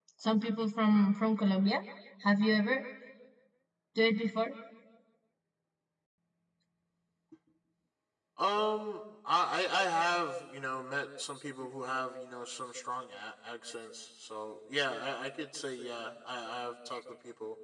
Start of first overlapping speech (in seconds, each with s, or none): none